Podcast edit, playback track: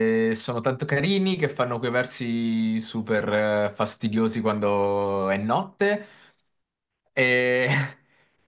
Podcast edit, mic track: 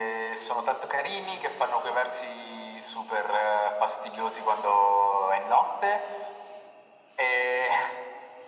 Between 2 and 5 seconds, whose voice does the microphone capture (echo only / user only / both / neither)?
echo only